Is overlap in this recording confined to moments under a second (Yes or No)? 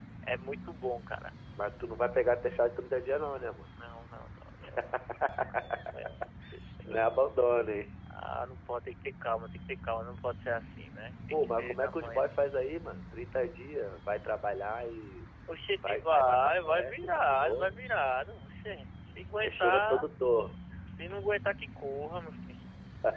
No